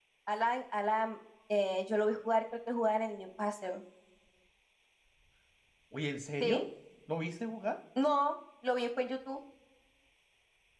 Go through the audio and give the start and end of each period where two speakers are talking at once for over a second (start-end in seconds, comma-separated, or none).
none